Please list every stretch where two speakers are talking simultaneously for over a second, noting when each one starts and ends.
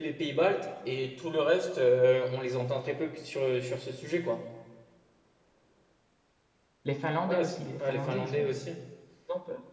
7.3-8.5

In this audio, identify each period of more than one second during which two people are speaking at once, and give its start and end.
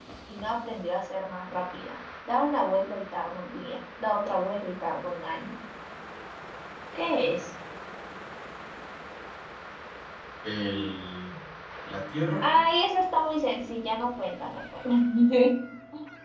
none

